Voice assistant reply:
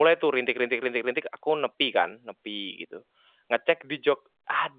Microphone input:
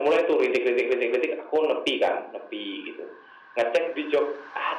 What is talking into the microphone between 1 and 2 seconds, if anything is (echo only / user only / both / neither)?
echo only